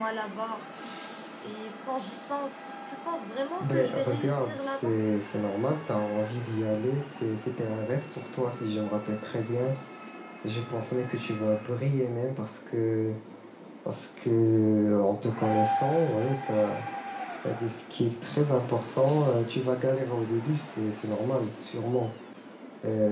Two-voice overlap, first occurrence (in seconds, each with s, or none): 3.6 s